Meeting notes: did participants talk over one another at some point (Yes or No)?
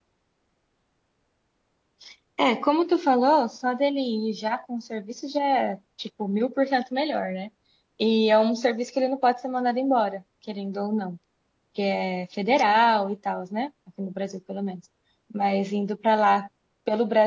No